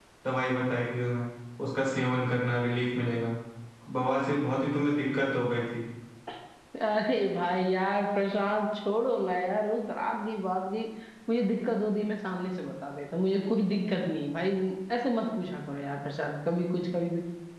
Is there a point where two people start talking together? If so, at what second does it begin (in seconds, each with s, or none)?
none